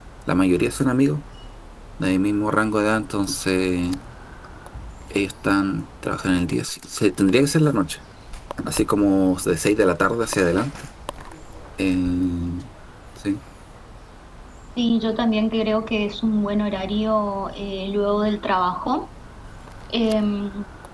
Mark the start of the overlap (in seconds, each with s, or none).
none